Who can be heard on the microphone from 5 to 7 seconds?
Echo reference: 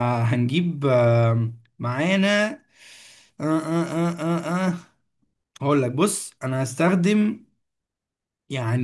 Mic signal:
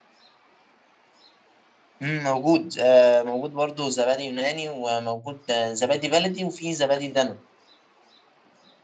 user only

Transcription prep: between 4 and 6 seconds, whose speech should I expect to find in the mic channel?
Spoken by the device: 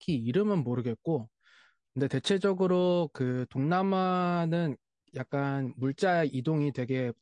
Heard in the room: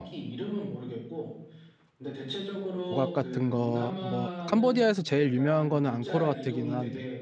both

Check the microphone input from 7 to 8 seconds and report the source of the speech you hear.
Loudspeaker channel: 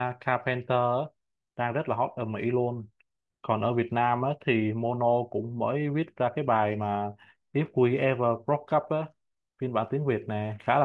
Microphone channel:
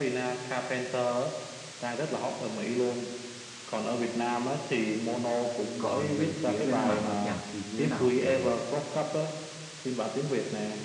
both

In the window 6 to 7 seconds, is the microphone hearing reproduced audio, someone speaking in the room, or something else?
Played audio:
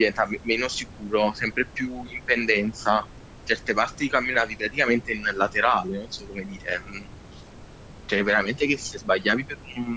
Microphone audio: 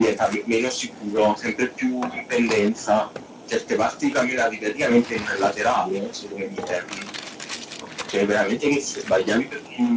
echo only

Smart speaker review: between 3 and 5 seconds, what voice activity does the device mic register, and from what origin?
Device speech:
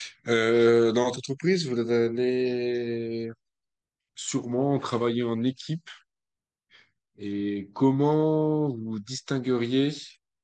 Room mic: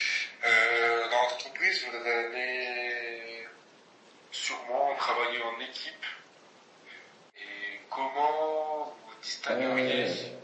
echo only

